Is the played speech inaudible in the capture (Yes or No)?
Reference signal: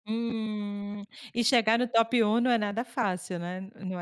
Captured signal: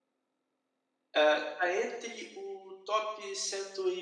Yes